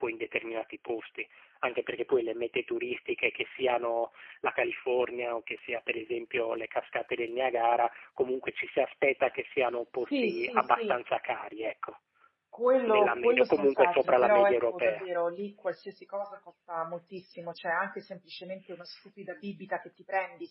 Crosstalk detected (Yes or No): Yes